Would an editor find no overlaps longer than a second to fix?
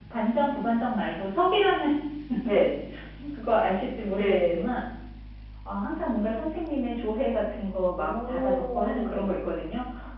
No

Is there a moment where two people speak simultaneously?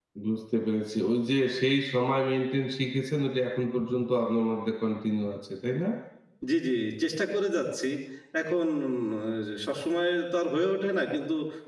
No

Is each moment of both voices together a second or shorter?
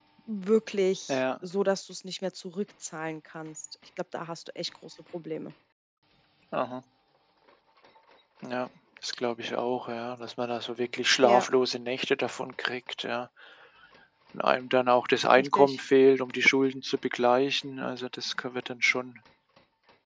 Yes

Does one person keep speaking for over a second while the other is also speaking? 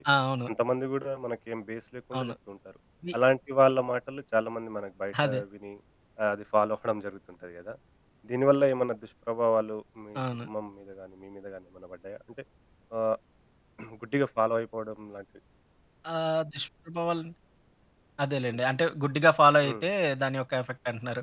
No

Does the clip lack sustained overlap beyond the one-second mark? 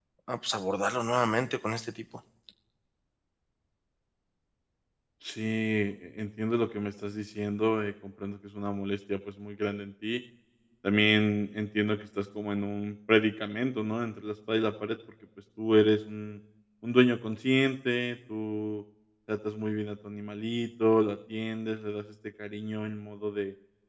Yes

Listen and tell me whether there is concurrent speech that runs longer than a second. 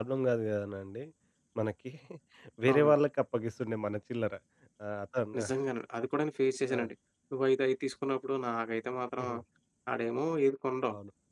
No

